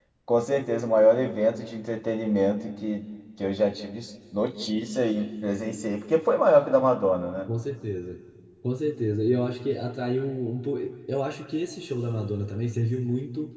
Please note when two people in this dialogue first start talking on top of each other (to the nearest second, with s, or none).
none